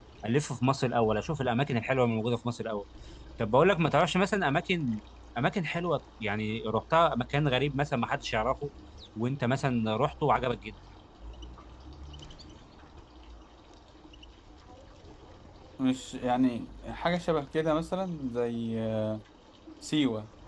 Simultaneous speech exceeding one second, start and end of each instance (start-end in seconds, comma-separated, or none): none